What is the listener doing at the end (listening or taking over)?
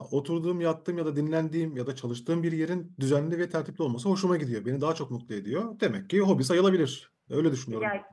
taking over